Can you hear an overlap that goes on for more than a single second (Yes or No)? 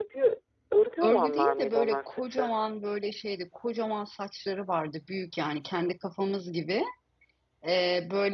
Yes